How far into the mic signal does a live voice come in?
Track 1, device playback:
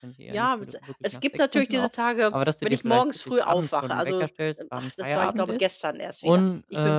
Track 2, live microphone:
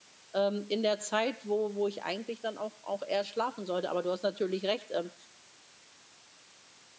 0.3 s

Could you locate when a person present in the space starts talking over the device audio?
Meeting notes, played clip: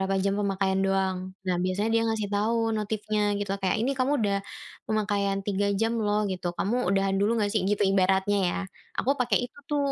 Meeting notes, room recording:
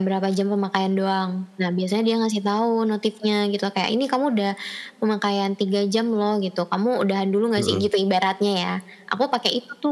7.6 s

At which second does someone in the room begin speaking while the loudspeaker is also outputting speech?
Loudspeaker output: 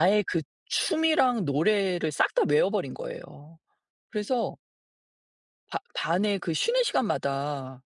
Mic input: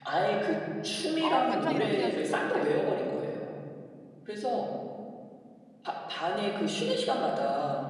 1.2 s

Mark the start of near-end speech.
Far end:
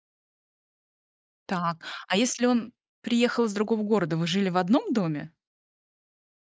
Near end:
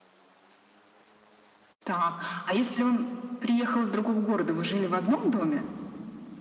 none

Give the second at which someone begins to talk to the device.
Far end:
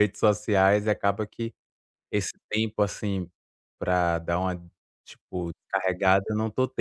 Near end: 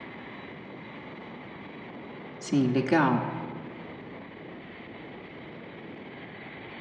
2.4 s

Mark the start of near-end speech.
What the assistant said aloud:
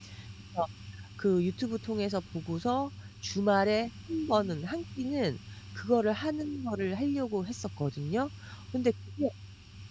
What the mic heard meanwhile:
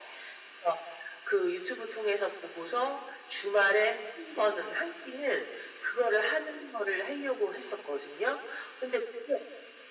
none

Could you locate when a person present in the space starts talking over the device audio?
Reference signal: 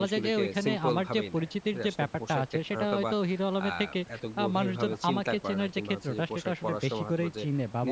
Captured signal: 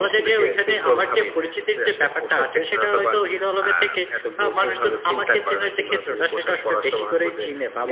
none

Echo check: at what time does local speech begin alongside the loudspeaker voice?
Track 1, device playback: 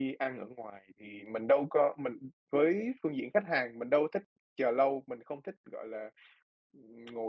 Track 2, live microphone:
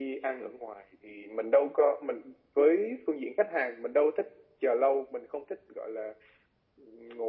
none

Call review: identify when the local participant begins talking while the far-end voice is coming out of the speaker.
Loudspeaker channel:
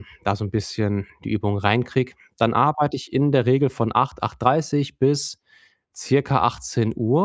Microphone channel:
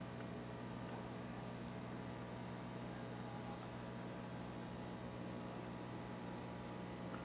none

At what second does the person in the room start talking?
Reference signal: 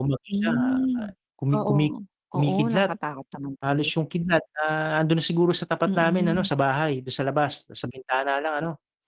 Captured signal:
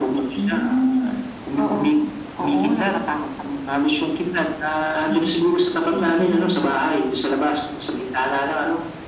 5.1 s

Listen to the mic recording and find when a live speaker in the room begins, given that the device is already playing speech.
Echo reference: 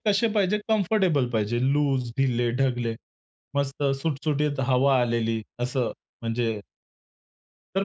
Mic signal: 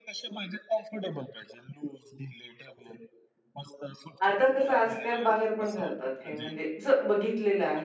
4.3 s

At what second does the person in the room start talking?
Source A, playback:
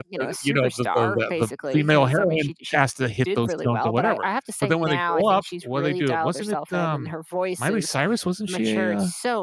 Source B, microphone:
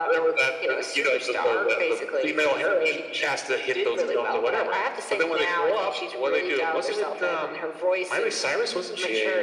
none

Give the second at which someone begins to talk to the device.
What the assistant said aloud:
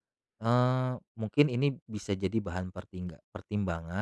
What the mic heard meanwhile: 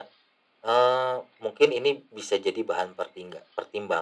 none

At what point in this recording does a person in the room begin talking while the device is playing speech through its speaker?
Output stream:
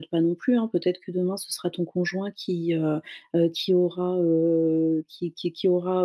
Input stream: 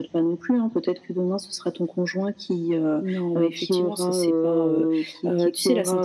3.0 s

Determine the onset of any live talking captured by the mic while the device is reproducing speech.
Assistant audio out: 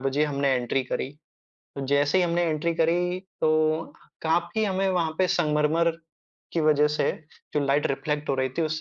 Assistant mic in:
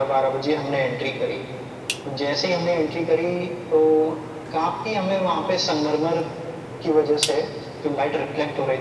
none

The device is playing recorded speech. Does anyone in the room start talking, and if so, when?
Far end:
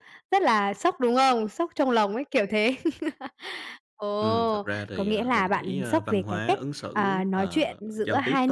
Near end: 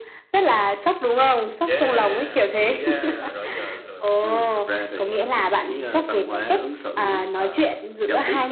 1.6 s

